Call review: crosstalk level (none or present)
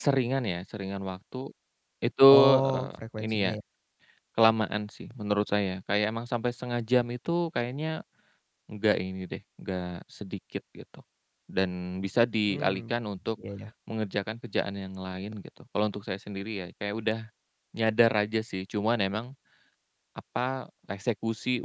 present